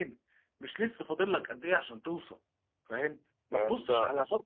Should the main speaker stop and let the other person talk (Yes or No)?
No